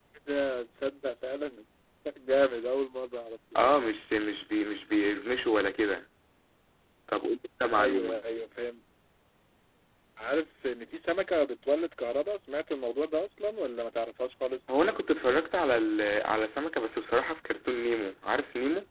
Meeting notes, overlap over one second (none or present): none